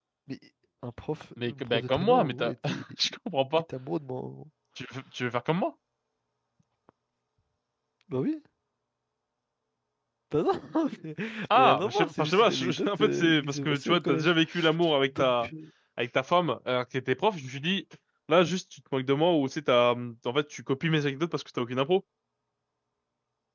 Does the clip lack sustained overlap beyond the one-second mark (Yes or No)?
No